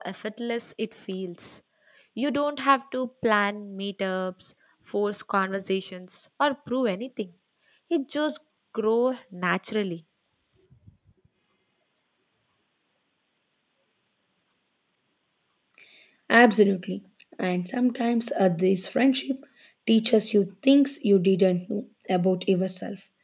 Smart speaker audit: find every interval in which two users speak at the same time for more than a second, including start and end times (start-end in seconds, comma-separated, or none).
none